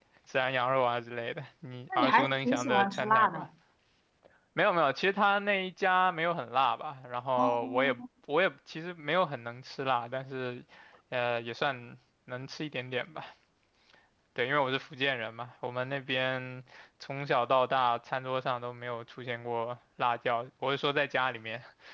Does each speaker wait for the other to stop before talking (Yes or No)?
No